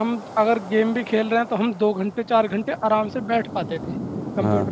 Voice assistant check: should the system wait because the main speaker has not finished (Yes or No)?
Yes